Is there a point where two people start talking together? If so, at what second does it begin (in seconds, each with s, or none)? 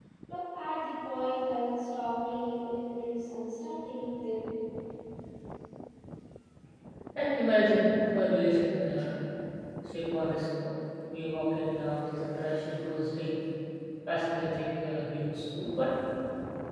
none